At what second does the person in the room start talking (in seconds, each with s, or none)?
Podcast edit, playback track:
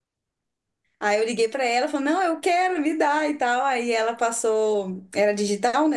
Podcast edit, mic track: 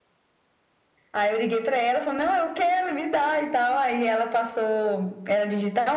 none